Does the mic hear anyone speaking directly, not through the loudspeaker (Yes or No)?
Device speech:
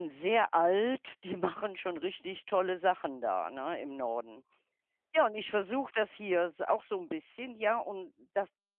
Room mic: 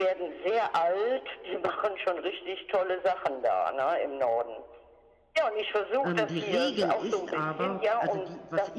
Yes